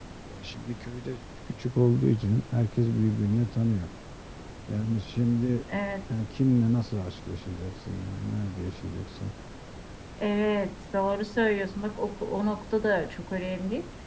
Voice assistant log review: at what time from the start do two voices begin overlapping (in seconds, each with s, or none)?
none